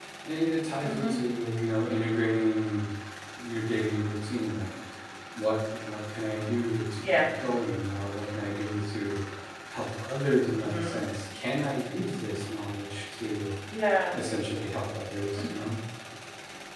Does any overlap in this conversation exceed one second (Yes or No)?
No